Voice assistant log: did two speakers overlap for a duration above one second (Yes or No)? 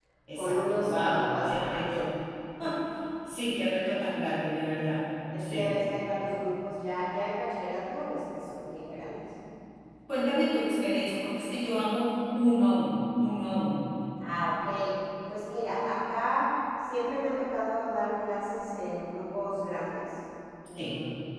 Yes